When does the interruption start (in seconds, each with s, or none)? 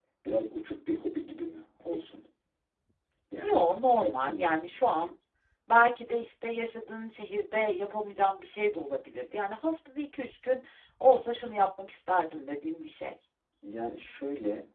3.4 s